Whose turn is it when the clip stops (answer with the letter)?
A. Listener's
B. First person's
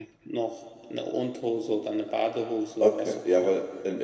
A